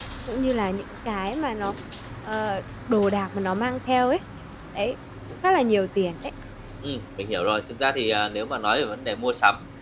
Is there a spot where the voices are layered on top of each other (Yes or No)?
No